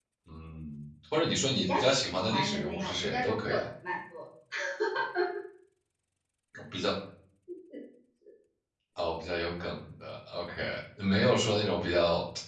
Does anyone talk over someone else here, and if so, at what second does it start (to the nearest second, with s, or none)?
2 s